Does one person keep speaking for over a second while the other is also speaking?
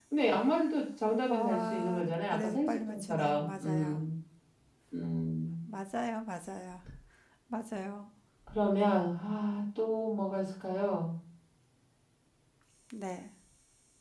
Yes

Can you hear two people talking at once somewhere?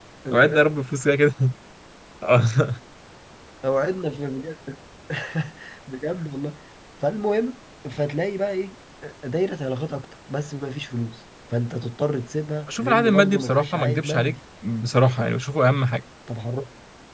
Yes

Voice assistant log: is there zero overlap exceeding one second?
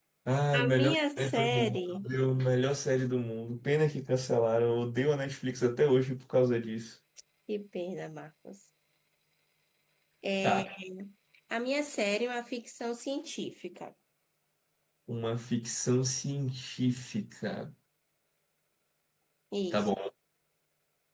No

